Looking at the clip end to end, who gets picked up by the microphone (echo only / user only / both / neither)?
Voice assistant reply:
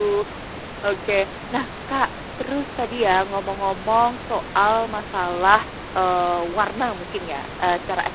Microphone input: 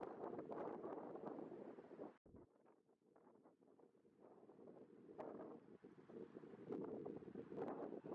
neither